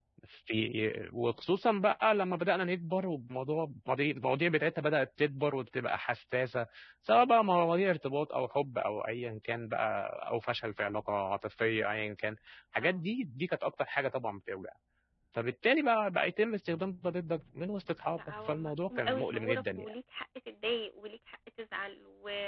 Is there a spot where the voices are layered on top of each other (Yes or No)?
Yes